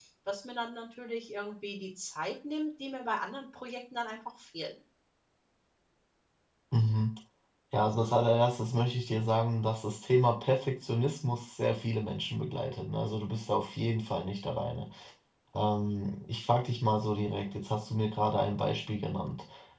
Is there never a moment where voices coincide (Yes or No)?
Yes